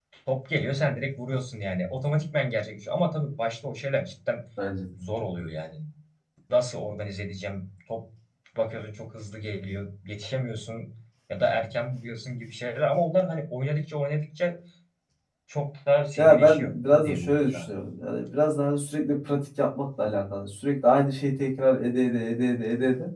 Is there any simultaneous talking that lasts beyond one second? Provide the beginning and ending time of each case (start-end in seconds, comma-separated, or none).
16.2-17.6